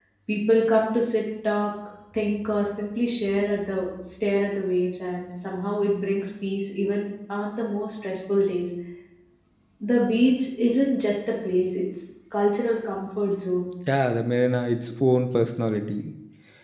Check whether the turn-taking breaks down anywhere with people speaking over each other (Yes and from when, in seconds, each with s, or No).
No